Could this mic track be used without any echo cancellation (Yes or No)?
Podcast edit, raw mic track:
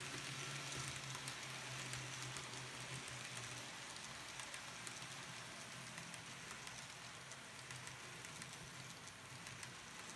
Yes